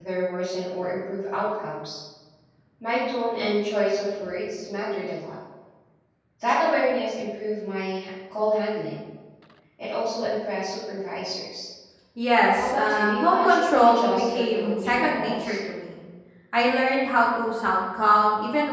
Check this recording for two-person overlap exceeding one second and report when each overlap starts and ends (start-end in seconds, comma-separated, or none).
12.6-15.6